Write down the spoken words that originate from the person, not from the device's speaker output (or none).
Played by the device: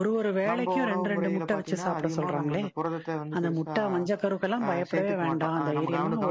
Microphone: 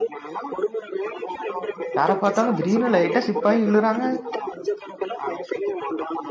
யார பாத்தாலு திடீர்னு லைட்டா ஸ்லிப்பாயி விழுறாங்கா